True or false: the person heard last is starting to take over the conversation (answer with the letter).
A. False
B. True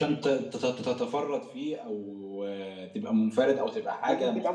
A